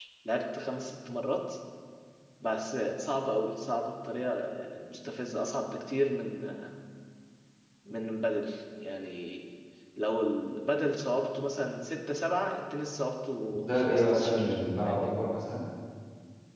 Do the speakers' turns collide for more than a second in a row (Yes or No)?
Yes